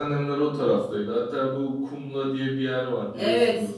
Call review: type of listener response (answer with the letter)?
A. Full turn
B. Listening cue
A